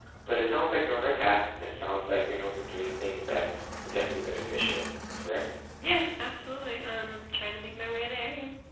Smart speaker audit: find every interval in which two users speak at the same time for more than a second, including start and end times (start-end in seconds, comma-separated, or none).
none